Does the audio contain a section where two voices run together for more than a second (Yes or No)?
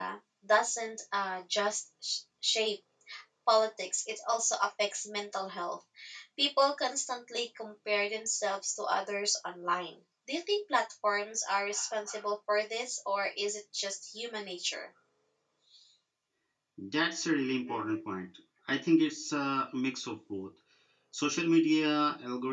No